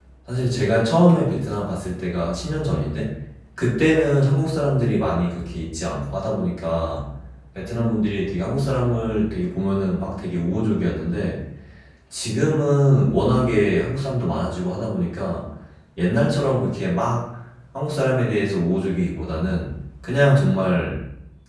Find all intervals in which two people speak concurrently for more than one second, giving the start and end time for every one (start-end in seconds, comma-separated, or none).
none